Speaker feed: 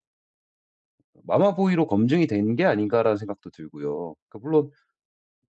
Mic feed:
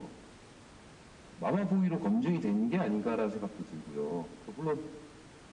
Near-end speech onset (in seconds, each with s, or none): none